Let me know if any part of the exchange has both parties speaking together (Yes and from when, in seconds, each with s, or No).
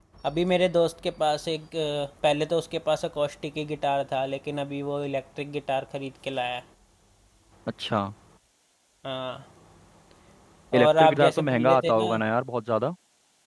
Yes, from 10.8 s